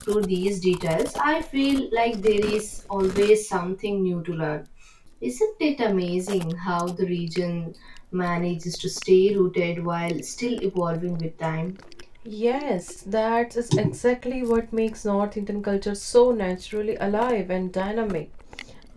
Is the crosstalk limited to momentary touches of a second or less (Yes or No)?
Yes